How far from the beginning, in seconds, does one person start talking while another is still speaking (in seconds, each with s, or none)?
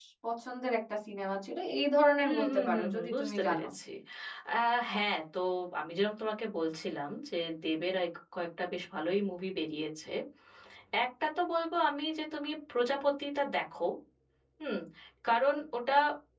2.2 s